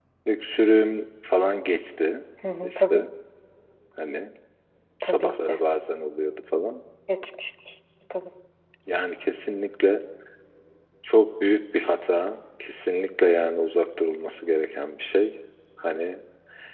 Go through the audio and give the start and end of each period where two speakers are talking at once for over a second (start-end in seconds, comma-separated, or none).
none